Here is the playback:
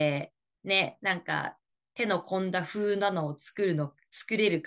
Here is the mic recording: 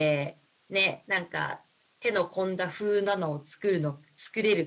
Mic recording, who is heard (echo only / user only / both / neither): echo only